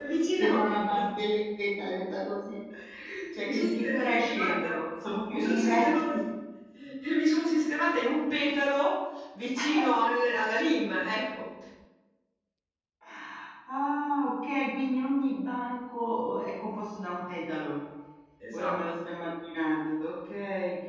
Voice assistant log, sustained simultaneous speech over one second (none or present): present